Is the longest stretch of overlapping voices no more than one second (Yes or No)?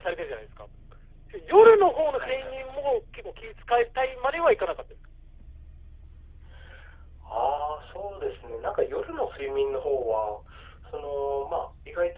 Yes